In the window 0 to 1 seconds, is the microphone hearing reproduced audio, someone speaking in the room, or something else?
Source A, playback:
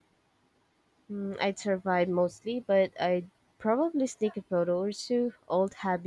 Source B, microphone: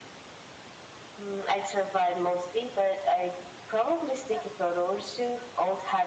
neither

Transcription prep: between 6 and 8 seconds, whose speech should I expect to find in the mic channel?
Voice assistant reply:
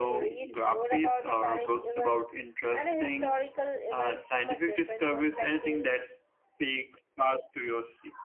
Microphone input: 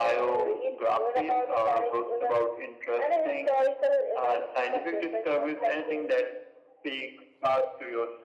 echo only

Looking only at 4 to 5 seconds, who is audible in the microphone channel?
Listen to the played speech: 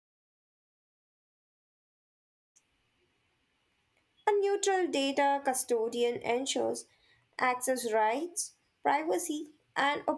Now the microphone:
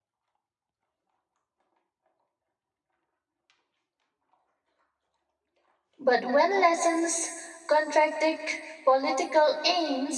neither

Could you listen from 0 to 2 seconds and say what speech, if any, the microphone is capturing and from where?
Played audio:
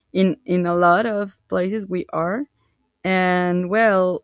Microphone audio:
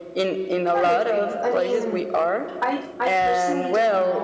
both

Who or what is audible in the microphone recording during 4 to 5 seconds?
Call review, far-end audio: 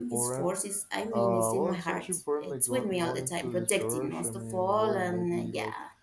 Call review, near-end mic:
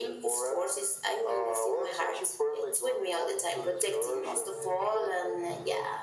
echo only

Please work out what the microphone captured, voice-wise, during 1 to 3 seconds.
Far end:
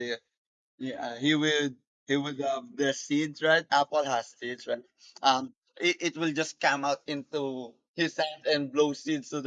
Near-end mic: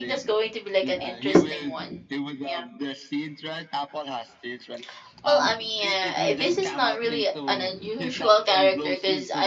both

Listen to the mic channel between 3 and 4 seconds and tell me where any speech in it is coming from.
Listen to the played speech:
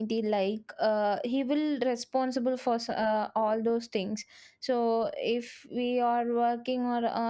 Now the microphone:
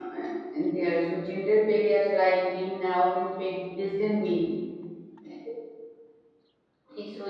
user only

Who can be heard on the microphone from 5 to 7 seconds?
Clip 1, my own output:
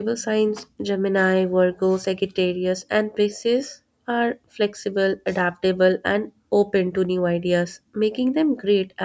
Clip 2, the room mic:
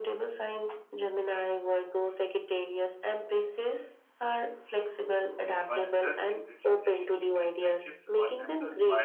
both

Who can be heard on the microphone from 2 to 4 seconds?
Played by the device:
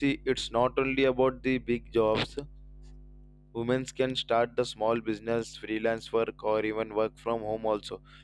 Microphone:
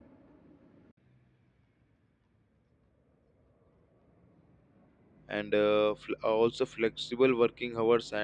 neither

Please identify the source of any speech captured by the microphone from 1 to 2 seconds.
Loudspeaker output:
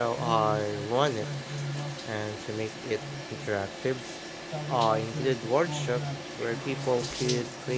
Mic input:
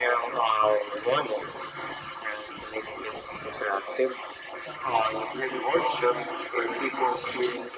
echo only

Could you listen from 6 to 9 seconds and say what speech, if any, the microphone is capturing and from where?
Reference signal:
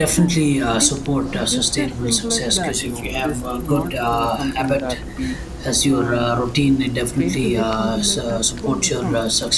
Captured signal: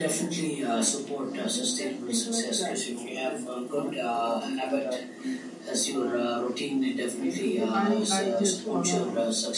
both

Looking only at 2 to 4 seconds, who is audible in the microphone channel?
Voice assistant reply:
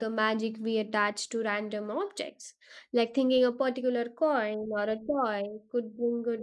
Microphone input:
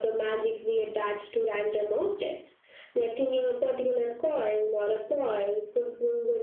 echo only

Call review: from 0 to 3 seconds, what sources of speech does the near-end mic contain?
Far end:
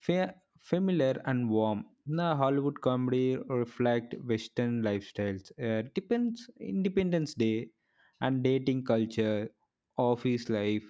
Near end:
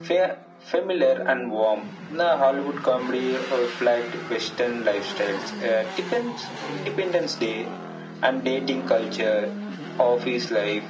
echo only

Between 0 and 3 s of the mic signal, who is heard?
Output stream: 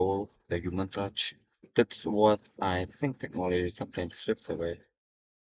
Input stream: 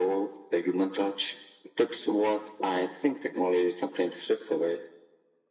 echo only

